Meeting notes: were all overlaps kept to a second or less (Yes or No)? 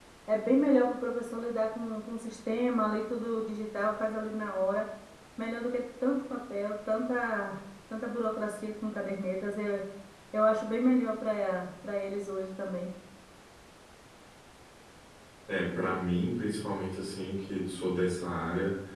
Yes